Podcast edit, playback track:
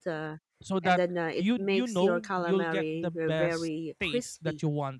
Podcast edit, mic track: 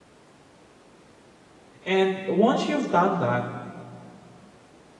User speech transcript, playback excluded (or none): And once you've done that,